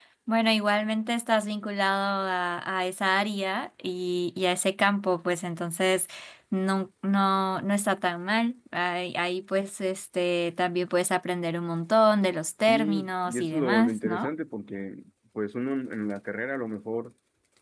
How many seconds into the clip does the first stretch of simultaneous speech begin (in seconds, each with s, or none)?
12.7 s